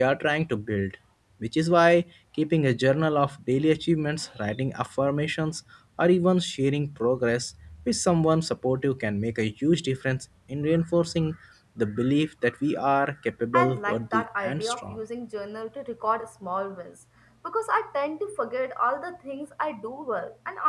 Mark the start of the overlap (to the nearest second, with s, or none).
14 s